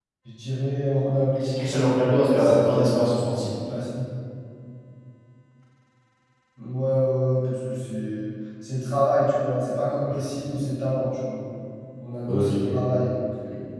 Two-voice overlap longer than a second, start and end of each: 1.6-3.5

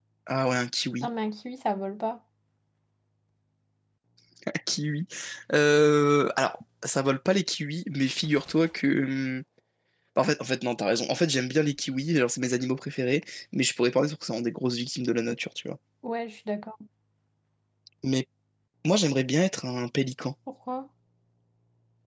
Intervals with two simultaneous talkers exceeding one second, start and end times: none

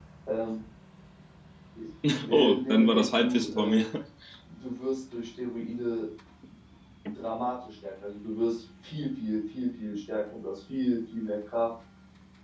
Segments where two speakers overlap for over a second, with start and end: 2.3-3.8

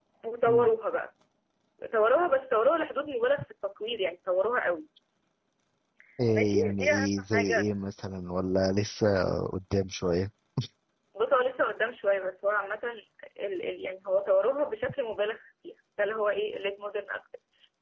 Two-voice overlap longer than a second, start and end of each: 6.3-7.6

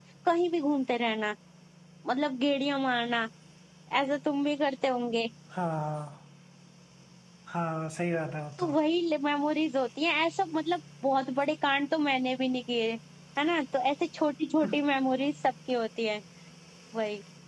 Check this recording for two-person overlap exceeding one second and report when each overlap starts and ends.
none

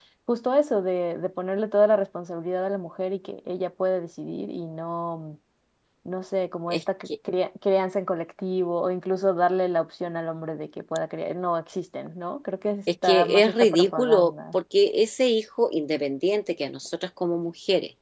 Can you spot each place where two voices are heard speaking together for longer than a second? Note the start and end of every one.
13.0-14.6

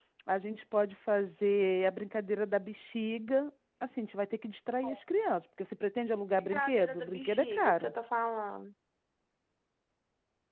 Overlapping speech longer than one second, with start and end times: 6.4-7.9

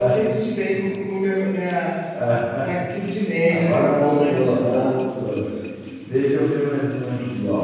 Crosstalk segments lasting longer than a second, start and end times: 3.5-5.0

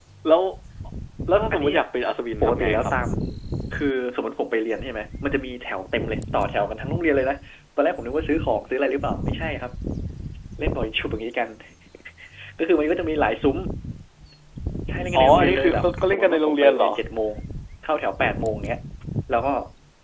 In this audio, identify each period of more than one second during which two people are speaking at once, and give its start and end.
15.2-16.9

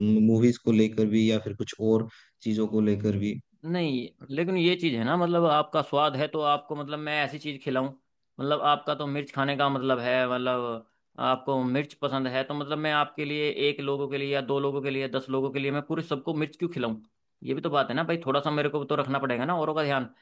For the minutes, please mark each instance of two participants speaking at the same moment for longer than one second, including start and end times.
none

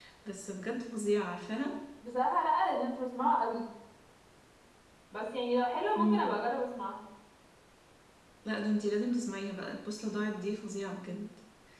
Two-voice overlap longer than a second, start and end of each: none

